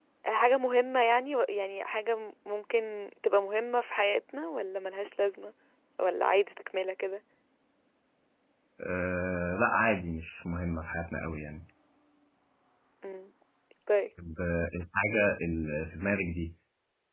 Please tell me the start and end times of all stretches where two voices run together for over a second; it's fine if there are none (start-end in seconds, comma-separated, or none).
none